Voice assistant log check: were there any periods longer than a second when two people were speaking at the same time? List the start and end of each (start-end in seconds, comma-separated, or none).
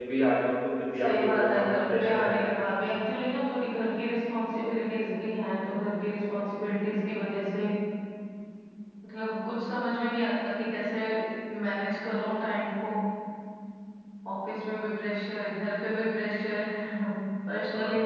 1.0-2.6